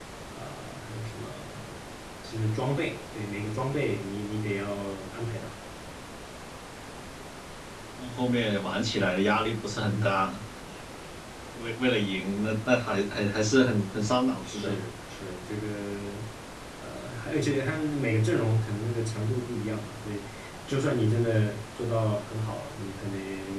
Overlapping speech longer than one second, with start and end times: none

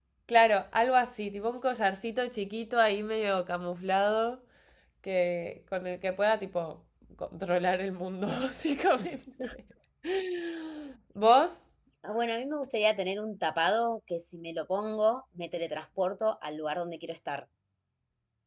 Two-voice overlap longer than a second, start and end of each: none

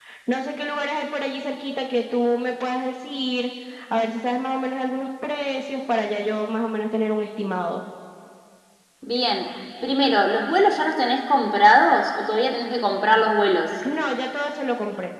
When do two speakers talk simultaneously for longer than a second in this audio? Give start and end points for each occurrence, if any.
none

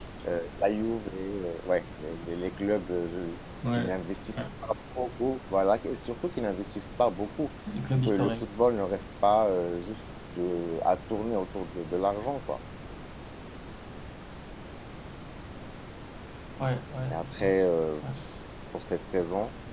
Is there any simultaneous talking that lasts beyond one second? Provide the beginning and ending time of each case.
none

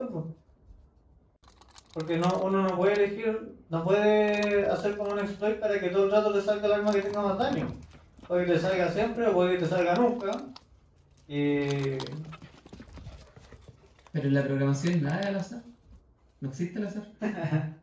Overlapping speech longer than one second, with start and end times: none

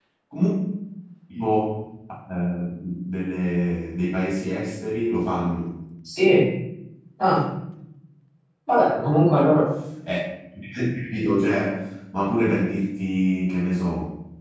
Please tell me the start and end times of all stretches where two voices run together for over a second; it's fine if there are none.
none

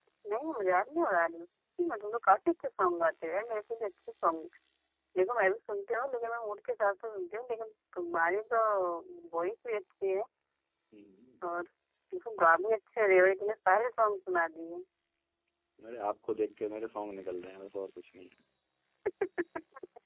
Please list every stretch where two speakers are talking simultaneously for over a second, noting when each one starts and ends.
none

